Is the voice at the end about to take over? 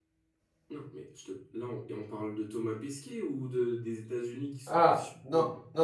Yes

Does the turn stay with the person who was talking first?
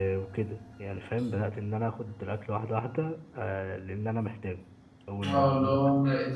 No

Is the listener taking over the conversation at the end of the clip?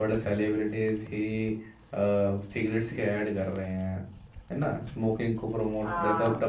No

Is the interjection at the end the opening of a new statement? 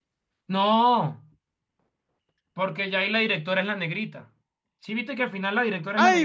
Yes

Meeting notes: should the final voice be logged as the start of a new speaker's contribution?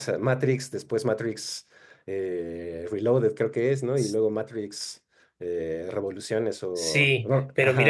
Yes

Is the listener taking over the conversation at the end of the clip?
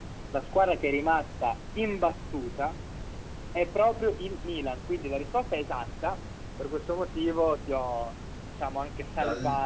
No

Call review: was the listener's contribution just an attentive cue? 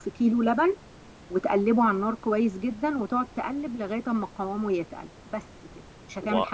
No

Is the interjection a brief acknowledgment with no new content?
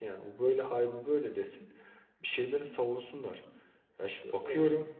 Yes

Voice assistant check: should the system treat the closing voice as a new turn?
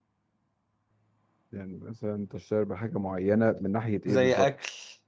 Yes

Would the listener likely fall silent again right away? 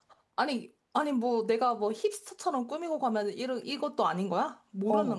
No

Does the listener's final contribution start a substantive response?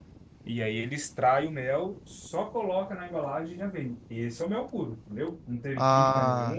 No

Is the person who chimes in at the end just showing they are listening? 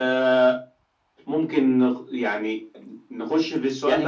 No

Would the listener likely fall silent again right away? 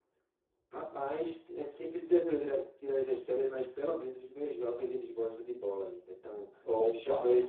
Yes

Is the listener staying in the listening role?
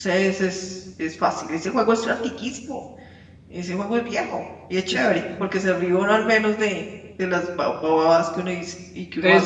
No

